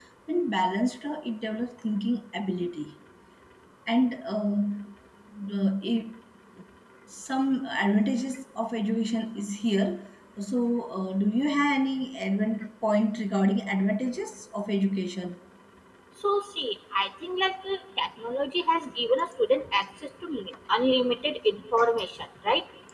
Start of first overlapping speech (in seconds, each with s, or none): none